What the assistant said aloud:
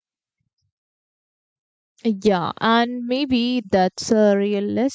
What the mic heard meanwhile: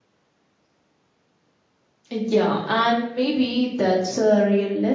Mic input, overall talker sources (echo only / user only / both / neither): echo only